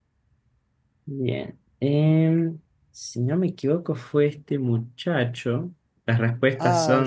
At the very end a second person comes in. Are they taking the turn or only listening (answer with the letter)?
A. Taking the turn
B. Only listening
B